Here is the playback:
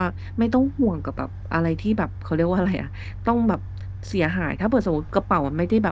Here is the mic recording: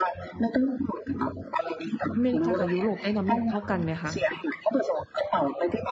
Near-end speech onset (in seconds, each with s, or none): 2.1 s